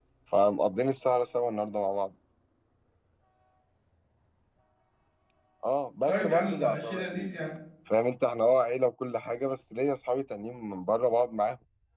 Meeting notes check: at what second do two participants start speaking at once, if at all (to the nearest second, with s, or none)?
6 s